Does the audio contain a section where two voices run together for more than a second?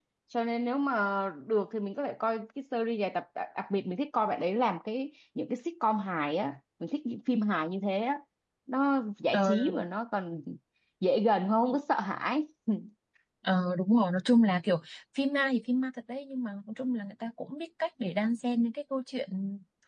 No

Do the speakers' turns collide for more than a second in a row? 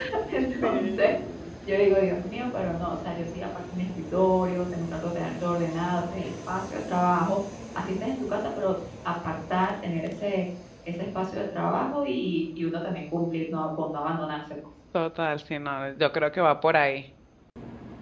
No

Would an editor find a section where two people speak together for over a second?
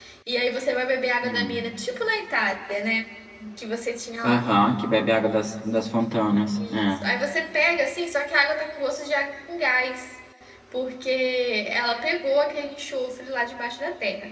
No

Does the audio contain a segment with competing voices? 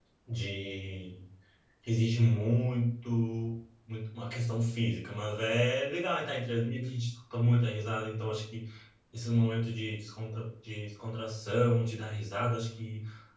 No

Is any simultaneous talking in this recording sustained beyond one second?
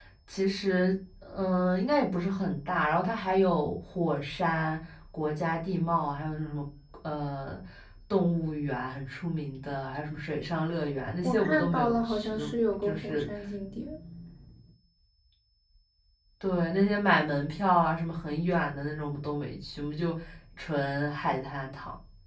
Yes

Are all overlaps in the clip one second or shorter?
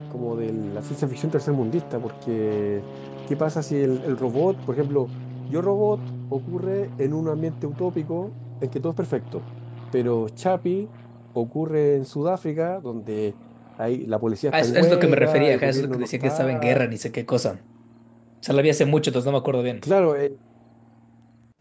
No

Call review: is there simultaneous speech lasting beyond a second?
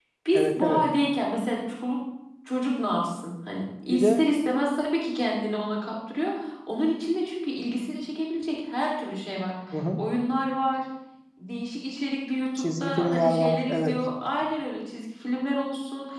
Yes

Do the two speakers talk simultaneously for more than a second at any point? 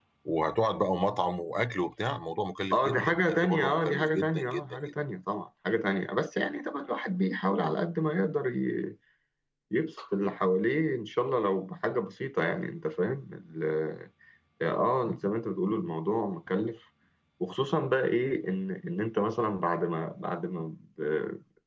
Yes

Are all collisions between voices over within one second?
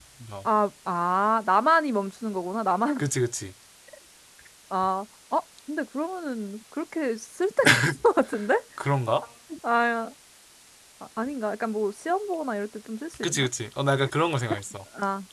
Yes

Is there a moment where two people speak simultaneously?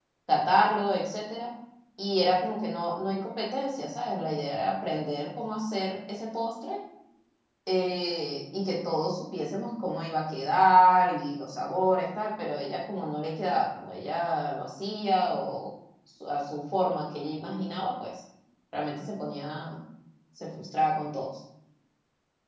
No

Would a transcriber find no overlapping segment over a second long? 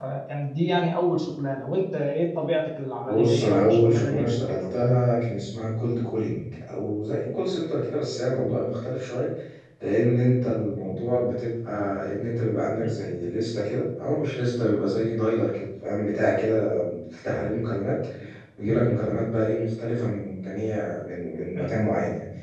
No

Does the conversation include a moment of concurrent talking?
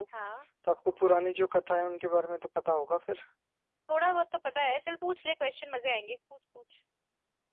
No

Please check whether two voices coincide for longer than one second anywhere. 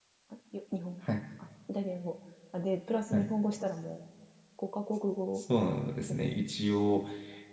No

